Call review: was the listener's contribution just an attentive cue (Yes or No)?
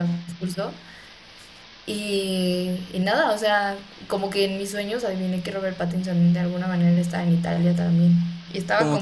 No